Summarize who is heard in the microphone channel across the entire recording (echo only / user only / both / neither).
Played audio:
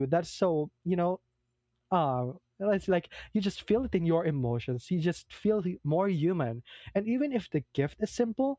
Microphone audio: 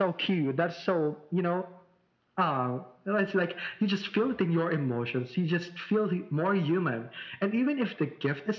echo only